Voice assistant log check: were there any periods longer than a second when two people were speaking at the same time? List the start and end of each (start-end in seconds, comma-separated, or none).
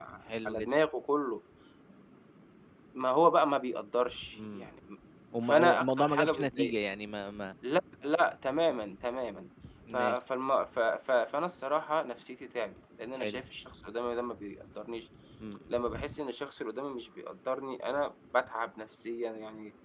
5.4-6.7